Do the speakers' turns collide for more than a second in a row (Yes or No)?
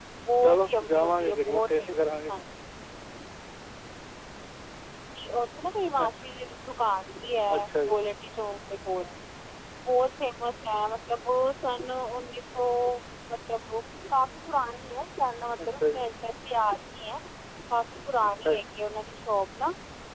Yes